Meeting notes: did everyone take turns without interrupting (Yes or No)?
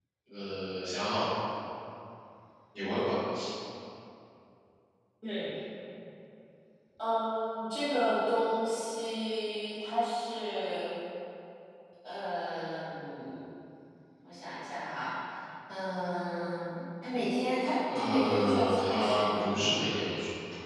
No